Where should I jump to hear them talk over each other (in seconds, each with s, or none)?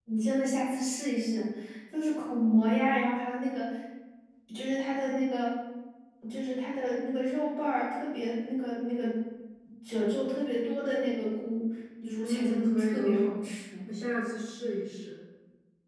12.0 s